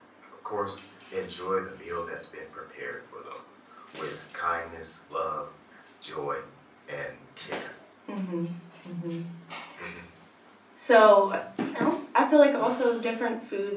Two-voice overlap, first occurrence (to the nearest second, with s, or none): none